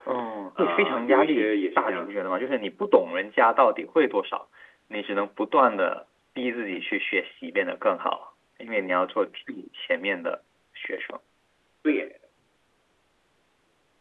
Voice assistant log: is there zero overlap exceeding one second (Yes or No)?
No